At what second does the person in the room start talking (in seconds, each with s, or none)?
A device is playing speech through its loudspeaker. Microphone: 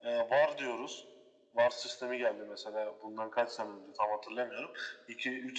none